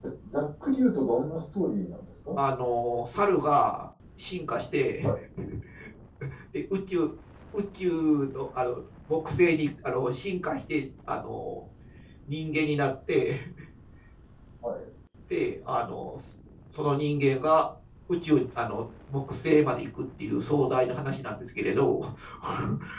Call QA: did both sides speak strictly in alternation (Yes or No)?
Yes